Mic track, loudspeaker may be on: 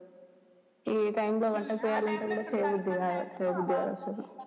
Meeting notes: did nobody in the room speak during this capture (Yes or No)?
No